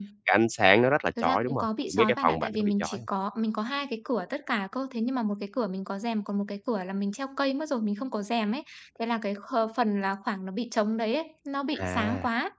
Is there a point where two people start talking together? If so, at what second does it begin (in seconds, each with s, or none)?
1.2 s